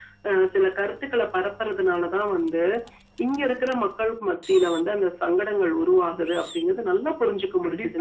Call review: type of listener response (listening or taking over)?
taking over